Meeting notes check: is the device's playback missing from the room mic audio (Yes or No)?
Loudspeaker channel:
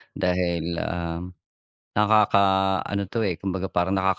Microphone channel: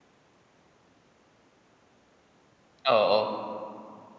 Yes